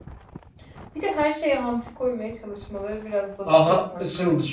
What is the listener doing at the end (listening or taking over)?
taking over